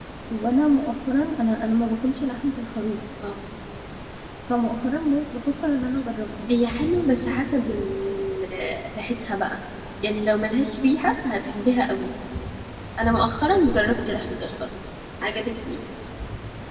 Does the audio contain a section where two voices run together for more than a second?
No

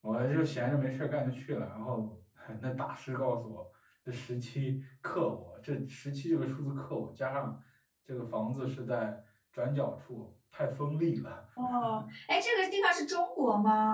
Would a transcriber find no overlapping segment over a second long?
Yes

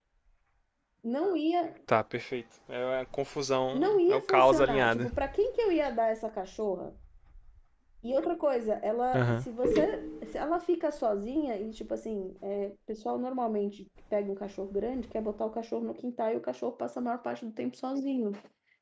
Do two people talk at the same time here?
Yes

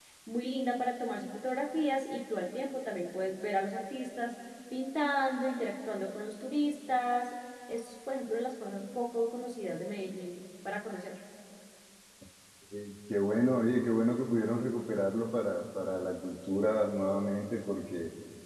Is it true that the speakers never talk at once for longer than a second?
Yes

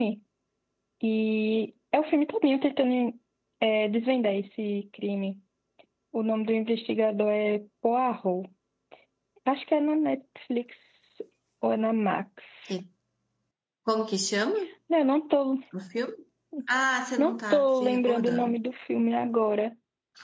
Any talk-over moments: Yes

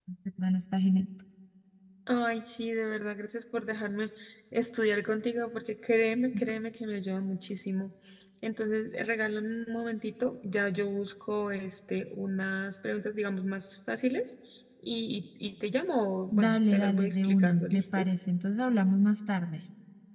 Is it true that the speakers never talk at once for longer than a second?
No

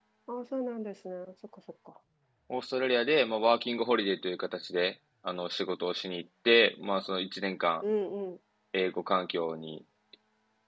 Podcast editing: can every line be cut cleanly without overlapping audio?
Yes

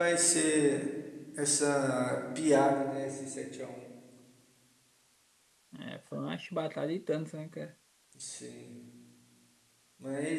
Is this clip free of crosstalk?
Yes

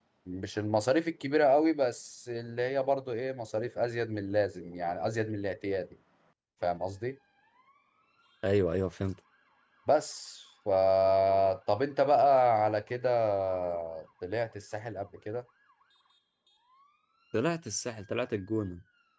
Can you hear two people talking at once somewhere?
No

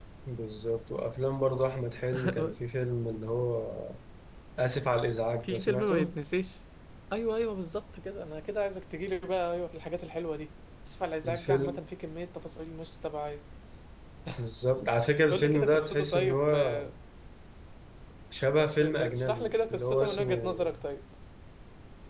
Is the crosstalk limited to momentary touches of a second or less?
No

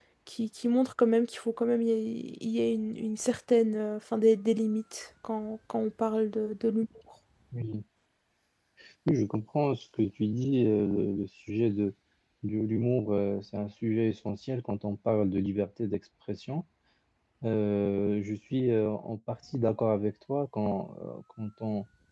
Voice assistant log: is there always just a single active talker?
Yes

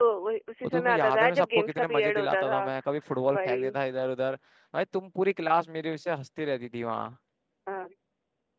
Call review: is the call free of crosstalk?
No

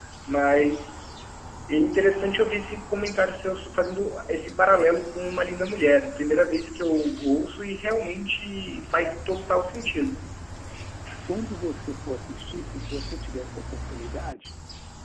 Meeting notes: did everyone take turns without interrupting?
Yes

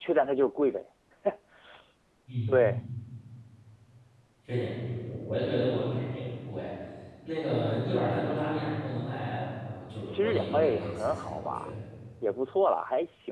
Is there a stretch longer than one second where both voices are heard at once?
Yes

